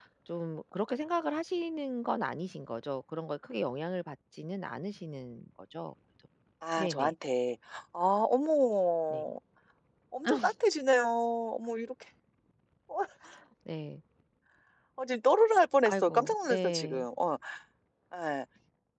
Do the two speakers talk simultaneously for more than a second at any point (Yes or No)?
Yes